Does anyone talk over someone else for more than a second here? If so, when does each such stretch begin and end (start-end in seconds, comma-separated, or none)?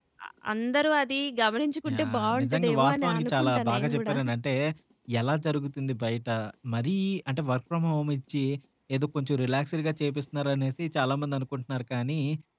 1.9-4.2